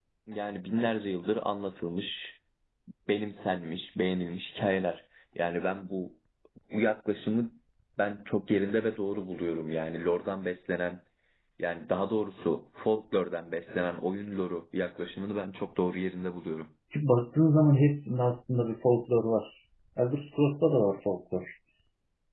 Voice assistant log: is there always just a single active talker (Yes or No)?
Yes